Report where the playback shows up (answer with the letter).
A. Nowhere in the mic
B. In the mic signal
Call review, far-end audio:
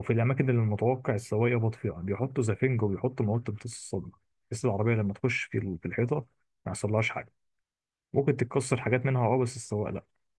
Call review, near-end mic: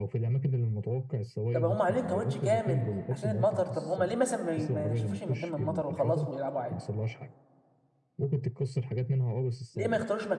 B